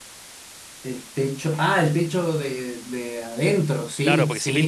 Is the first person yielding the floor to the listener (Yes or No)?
Yes